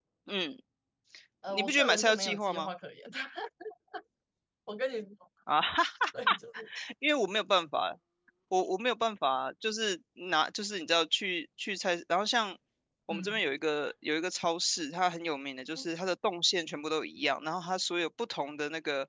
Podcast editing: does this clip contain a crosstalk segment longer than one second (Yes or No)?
Yes